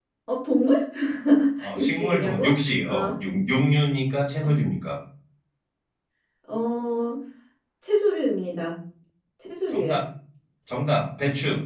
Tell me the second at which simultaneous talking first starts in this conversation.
1.8 s

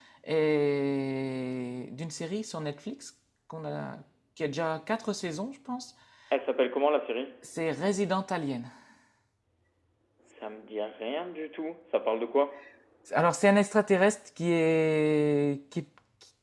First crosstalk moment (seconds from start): none

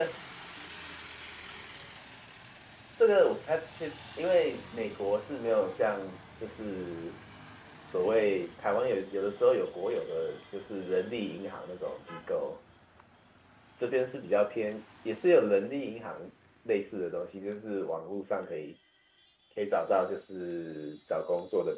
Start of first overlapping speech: none

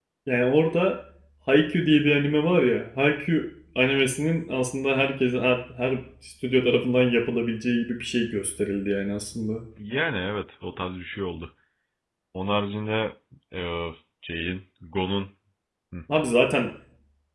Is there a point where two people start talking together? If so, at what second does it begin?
none

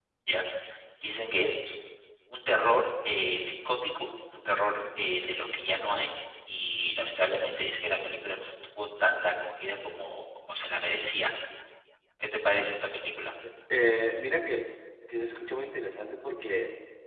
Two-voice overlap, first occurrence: none

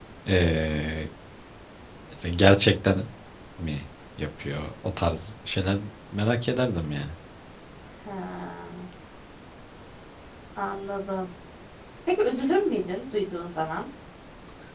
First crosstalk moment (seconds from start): none

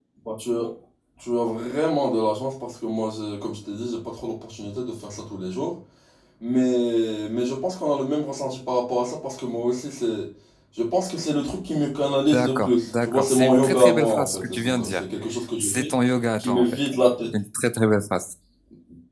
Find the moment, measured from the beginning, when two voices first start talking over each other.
12.3 s

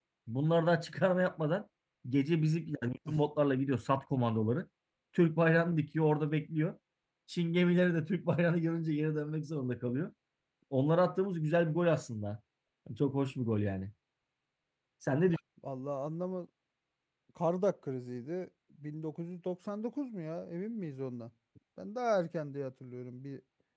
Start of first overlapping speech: none

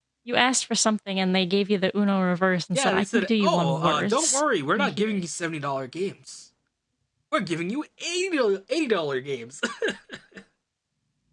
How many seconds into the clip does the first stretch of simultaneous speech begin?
2.7 s

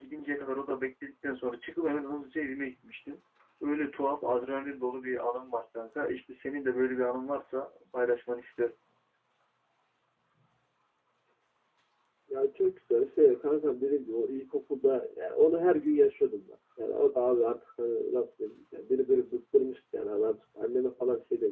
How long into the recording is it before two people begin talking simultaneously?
none

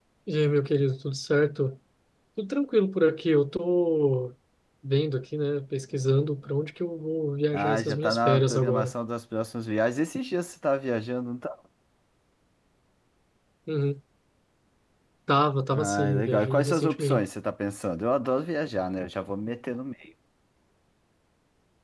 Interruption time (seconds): 7.5 s

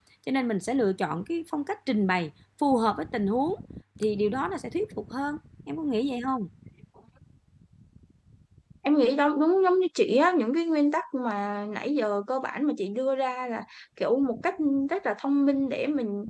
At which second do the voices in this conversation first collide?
none

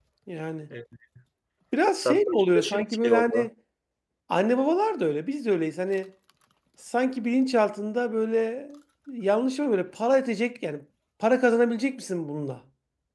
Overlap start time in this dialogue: 2.0 s

